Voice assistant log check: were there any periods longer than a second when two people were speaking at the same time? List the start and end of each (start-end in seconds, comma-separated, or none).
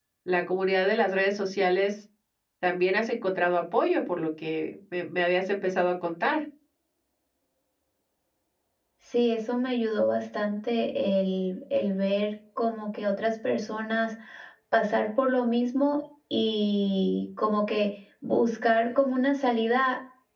none